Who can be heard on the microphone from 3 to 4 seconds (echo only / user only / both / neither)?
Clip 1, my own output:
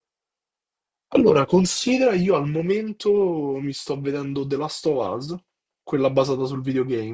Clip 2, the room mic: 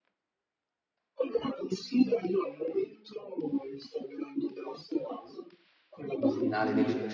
echo only